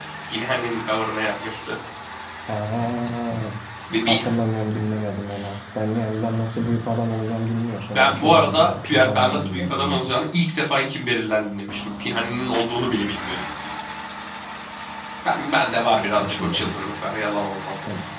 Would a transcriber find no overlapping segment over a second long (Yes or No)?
No